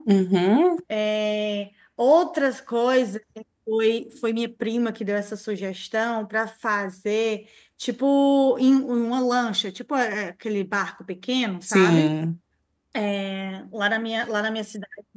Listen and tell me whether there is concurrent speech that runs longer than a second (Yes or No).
No